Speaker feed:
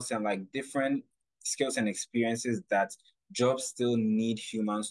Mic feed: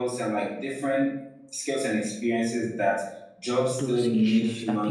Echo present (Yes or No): Yes